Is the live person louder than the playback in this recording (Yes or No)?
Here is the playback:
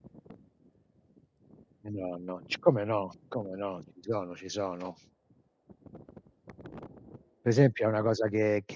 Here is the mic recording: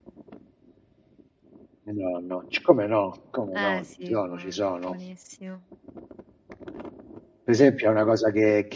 No